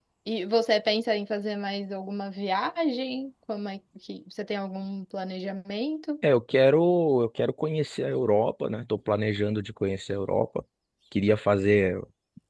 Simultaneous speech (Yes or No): No